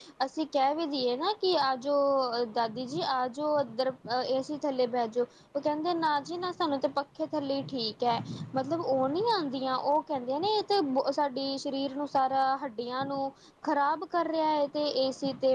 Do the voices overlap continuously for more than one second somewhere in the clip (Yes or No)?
No